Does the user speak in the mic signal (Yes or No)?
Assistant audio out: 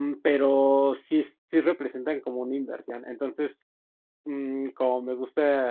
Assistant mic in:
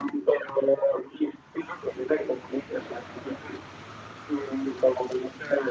No